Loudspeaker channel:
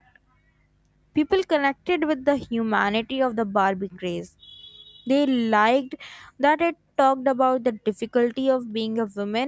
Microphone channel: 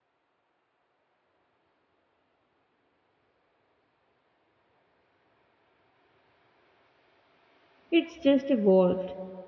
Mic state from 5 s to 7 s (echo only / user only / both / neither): neither